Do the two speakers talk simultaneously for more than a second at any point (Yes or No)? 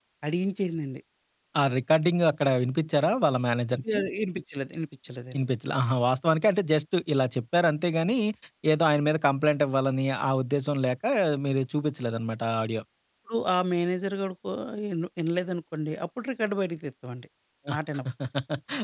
No